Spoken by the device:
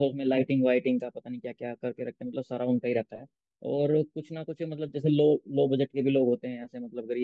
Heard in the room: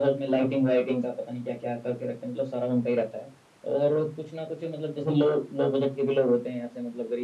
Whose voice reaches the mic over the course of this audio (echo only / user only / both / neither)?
echo only